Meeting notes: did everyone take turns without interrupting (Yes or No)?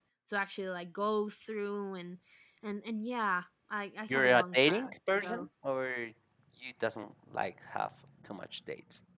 No